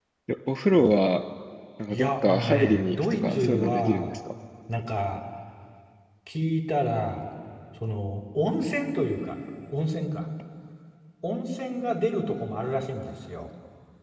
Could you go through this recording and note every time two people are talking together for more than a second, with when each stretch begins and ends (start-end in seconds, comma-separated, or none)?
1.9-4.1